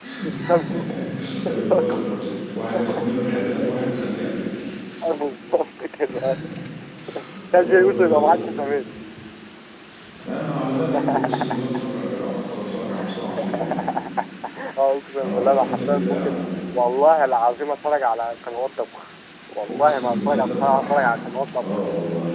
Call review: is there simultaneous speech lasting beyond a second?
Yes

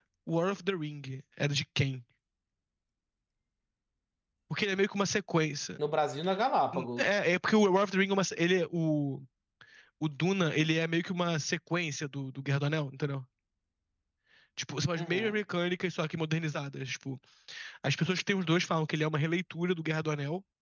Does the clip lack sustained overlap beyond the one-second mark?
Yes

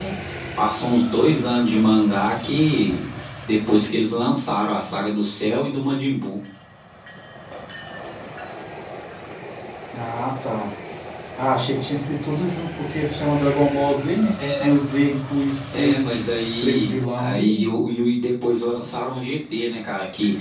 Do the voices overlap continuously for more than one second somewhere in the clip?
Yes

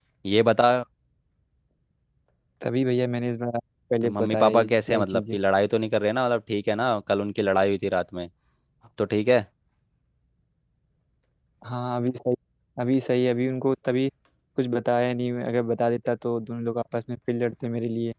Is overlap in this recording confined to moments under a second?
No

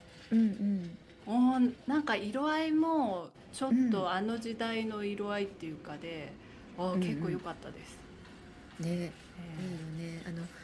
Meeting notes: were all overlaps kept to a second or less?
Yes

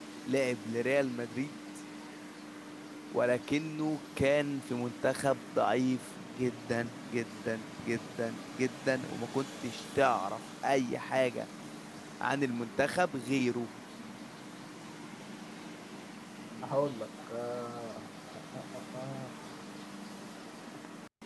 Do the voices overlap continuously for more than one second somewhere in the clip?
No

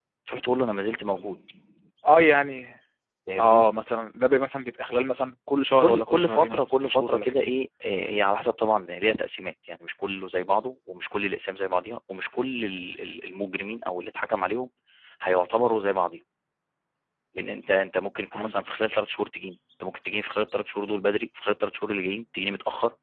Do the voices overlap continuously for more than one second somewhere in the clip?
Yes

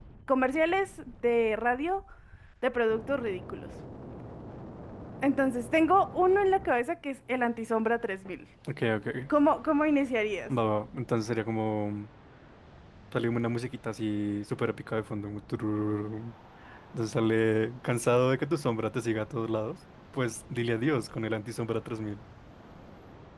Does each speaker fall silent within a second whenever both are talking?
Yes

